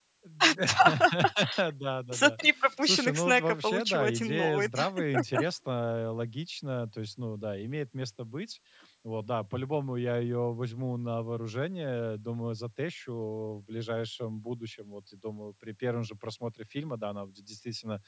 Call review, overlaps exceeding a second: present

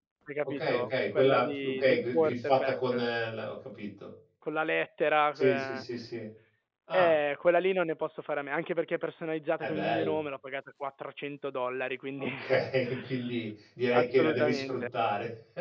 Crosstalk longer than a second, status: present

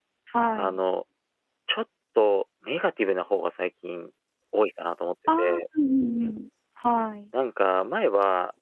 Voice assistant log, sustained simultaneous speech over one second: none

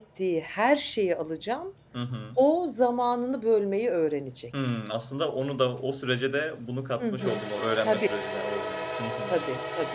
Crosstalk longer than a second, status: none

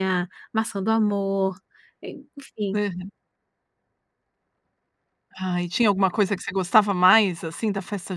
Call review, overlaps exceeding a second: none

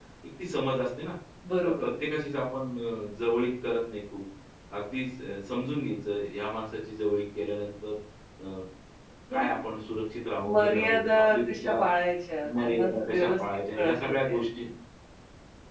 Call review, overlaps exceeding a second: present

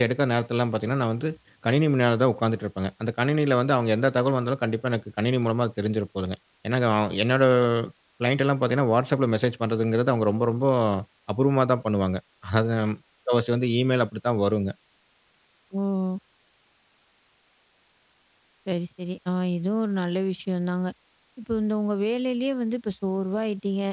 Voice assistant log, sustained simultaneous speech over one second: none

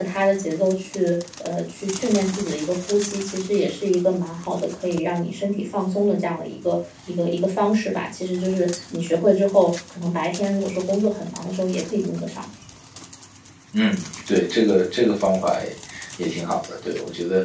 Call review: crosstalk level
none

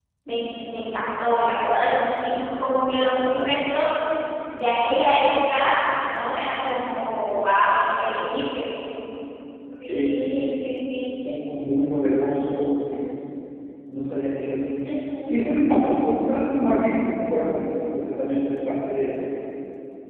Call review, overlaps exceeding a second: none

